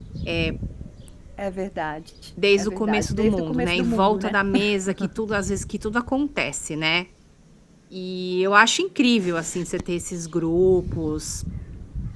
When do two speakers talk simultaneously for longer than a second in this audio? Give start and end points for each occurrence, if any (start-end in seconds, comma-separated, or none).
2.6-4.4